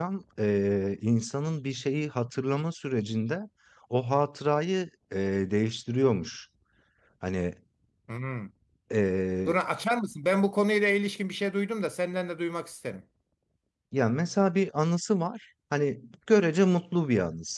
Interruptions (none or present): none